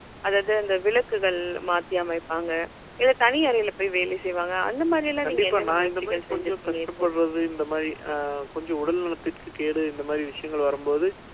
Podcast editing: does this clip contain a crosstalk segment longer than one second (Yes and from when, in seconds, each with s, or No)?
Yes, from 5.2 s